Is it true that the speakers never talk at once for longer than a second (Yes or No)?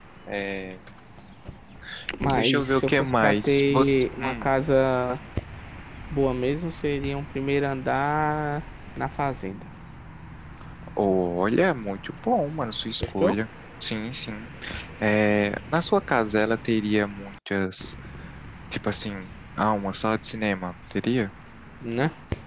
No